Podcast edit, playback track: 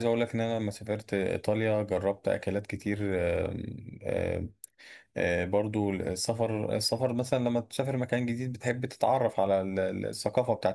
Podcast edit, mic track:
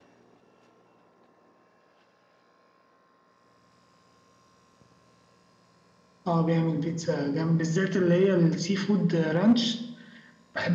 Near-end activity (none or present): present